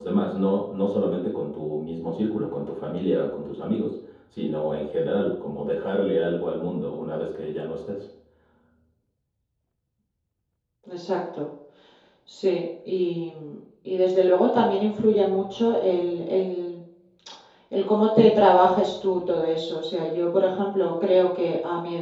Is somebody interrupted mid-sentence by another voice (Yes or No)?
No